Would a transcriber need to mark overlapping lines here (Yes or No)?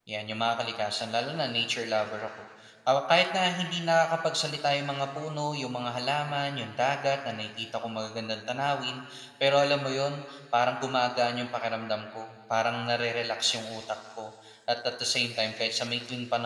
No